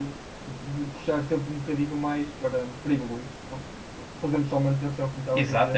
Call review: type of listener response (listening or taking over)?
taking over